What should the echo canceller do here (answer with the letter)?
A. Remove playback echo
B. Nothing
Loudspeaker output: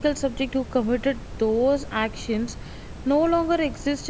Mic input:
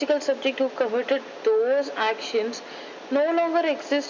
A